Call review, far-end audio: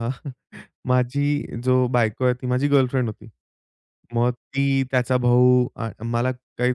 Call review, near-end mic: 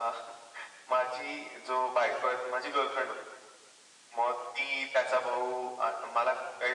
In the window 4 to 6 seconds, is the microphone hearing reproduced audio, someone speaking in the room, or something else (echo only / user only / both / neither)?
echo only